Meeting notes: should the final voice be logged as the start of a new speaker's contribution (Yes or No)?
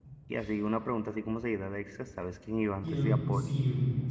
Yes